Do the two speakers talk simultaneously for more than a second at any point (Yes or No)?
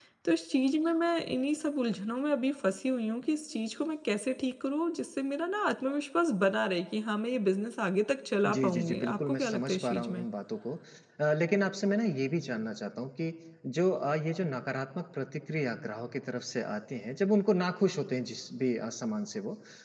Yes